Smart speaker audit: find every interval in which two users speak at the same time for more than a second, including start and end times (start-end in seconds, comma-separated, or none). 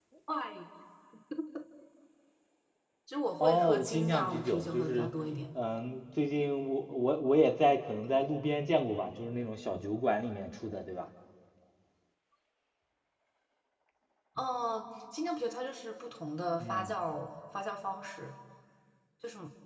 3.4-5.1